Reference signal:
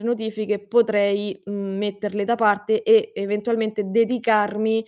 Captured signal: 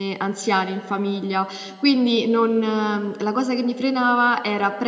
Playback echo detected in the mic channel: No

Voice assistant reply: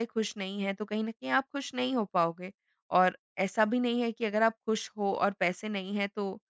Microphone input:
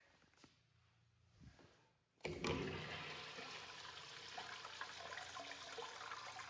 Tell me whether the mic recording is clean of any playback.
Yes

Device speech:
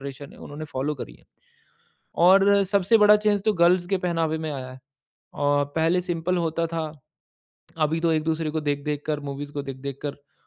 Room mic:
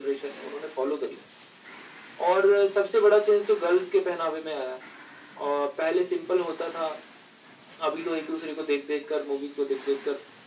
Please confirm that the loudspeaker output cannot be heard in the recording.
No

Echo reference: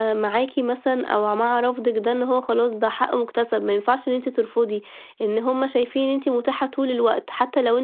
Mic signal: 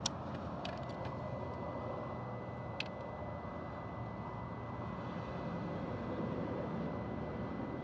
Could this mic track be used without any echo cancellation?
Yes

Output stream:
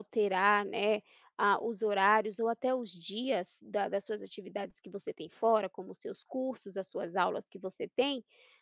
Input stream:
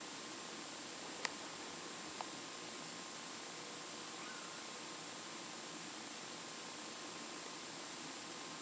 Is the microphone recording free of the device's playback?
Yes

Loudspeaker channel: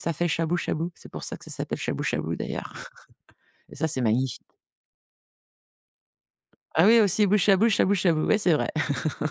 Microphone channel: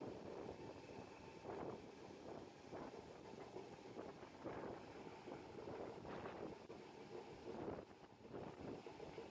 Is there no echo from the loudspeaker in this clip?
Yes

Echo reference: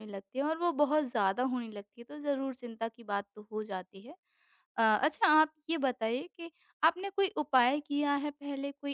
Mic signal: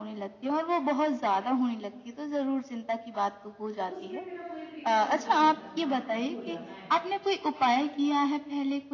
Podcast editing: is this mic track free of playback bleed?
No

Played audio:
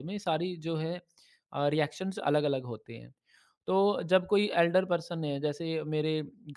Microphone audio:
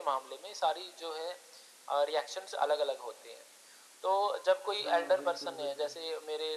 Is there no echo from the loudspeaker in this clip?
No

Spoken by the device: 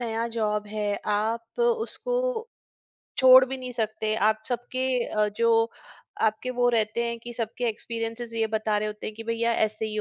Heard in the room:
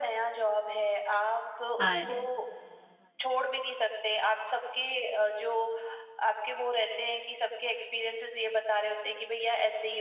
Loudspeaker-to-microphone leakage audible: Yes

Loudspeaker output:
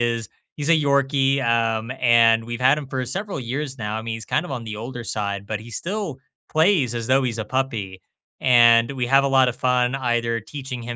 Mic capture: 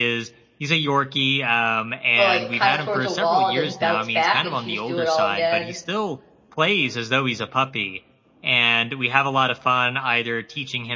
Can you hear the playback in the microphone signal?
Yes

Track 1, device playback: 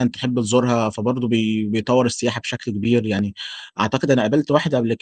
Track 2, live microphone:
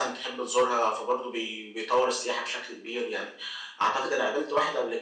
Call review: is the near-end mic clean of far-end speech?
No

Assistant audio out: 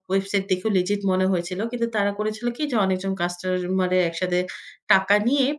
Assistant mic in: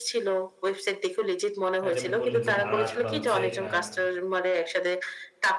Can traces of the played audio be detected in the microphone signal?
Yes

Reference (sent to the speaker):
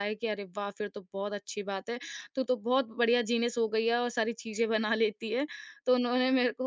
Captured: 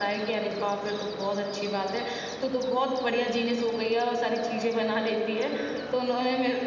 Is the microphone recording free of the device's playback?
No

